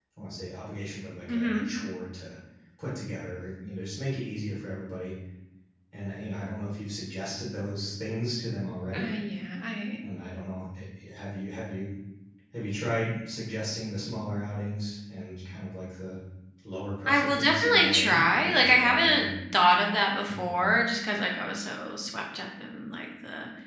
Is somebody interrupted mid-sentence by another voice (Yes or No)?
Yes